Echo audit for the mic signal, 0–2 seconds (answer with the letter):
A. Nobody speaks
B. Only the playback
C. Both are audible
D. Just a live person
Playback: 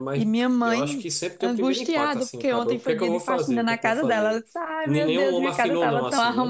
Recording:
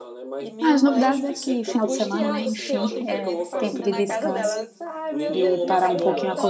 C